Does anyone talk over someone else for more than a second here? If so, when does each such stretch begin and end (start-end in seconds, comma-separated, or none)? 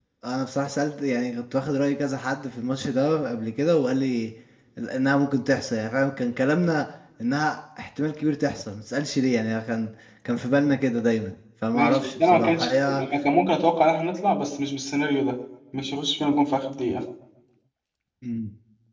11.7-13.0